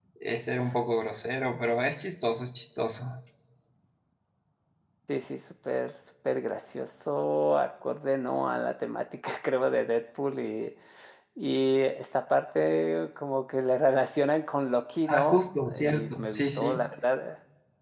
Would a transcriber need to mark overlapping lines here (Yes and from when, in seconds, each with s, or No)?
Yes, from 15.1 s